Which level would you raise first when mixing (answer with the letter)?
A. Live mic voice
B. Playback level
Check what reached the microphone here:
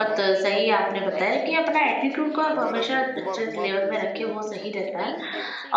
B